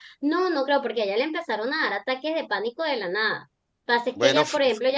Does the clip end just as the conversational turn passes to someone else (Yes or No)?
No